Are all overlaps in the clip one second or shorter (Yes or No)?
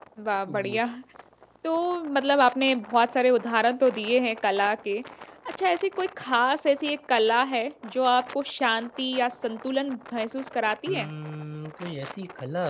Yes